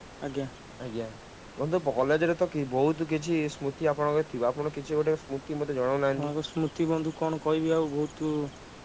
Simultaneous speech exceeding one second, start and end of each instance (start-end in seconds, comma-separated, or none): none